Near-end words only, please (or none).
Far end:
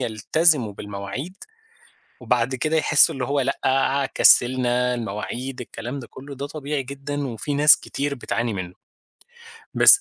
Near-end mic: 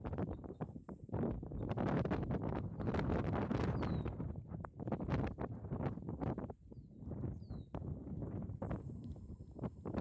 none